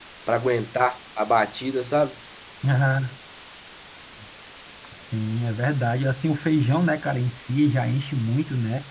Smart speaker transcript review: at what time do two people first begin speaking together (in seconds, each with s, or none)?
none